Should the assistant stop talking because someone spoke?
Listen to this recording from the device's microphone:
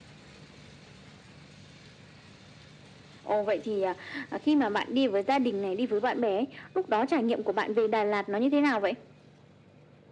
No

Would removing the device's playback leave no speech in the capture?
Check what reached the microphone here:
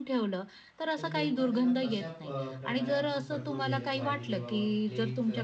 No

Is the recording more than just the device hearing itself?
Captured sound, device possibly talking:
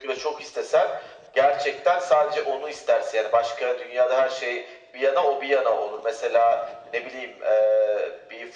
No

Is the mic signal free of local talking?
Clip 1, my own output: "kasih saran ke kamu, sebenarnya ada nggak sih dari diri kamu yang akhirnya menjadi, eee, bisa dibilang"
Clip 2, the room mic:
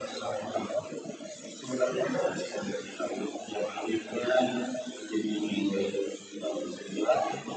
Yes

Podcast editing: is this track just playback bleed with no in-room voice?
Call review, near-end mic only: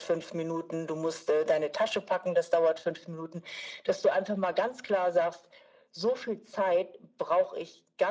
Yes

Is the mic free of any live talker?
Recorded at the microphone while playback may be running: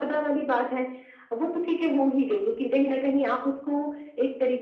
Yes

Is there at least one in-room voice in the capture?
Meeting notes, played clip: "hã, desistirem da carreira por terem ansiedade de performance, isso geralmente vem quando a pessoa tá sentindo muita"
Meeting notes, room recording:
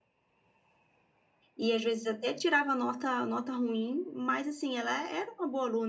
Yes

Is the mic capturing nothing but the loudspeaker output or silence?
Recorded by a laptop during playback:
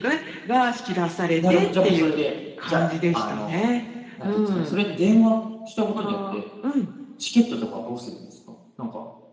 No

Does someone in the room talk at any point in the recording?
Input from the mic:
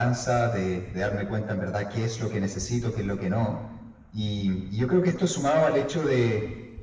No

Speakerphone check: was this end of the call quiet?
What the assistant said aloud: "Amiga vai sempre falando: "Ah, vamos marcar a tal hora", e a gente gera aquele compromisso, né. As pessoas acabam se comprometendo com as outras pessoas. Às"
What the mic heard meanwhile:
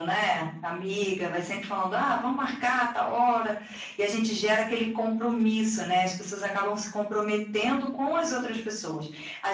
Yes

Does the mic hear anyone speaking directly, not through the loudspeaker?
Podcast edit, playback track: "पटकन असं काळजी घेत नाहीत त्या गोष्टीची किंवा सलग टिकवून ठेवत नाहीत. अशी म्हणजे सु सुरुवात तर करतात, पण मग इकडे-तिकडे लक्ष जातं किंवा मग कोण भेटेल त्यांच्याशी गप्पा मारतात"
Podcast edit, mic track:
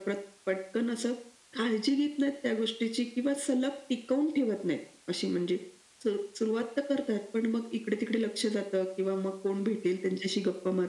No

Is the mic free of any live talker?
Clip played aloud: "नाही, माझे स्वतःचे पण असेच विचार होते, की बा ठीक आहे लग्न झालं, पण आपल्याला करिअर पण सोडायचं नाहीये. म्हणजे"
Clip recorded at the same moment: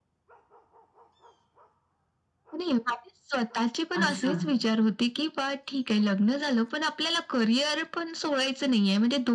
No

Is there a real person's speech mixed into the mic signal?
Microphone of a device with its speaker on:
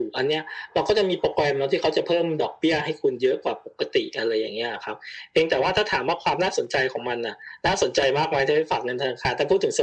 No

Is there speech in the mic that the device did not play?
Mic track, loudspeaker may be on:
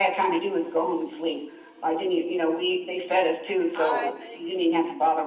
Yes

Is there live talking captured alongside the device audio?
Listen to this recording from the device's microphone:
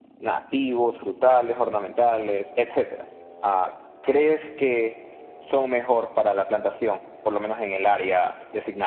Yes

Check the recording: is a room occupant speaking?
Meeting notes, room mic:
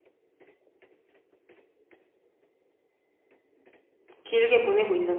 Yes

